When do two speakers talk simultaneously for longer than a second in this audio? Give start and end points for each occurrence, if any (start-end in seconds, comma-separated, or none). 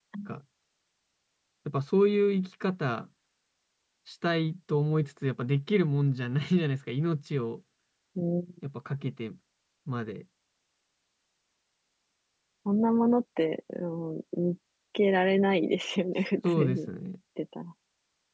none